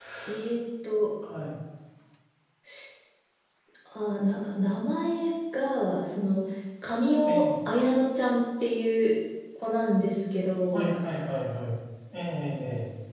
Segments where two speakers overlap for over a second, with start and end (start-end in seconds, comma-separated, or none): none